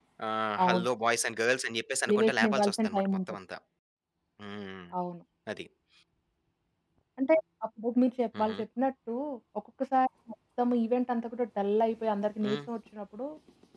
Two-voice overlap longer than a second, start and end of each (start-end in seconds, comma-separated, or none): 2.1-3.4